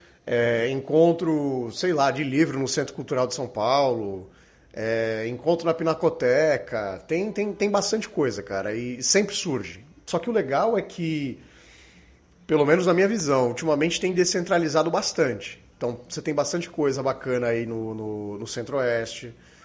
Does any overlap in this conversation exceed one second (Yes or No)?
No